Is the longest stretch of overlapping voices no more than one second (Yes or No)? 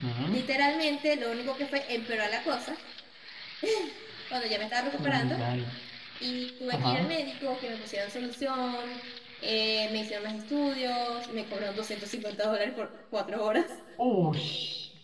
Yes